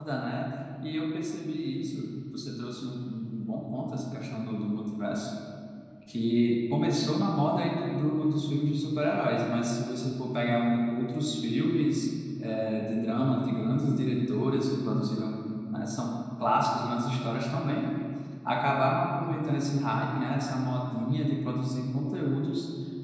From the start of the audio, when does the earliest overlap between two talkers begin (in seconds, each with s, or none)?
none